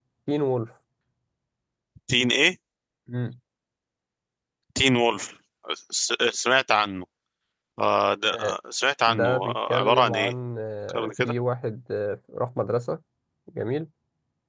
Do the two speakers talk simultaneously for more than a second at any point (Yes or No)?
Yes